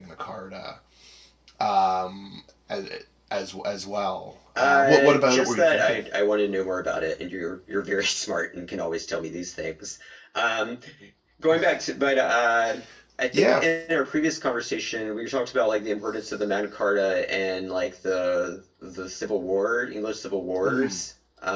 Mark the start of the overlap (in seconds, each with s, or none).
4.6 s